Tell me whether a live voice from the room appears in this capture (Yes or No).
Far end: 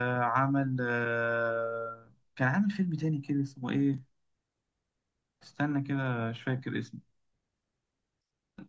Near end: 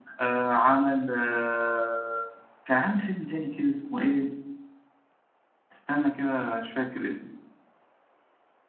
No